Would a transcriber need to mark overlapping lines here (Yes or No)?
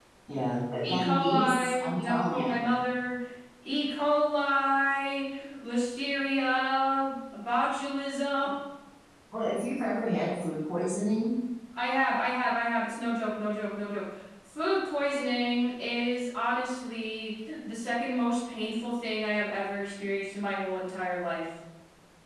Yes